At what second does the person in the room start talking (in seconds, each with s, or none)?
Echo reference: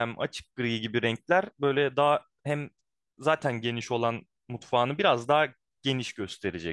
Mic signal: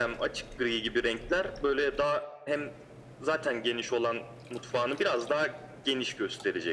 none